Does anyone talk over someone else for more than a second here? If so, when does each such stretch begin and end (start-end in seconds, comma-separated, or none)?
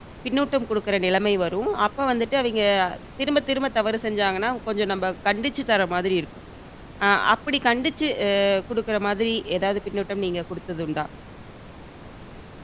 none